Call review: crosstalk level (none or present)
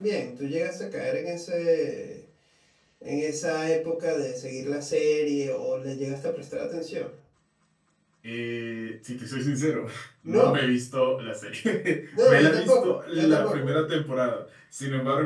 present